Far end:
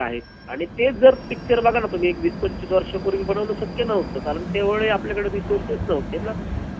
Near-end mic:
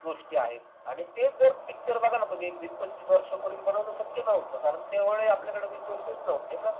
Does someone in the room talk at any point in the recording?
No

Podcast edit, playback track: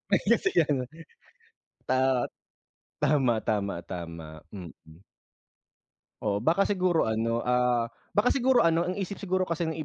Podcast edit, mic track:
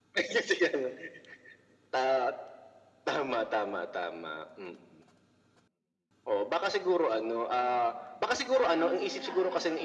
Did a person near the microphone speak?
Yes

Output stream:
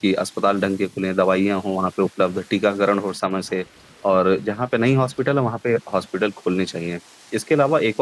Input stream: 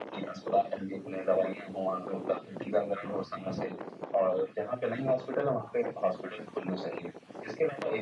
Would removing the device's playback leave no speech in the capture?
Yes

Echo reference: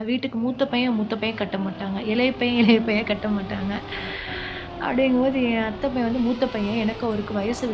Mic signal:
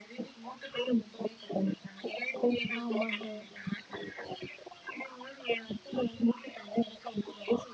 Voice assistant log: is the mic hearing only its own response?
No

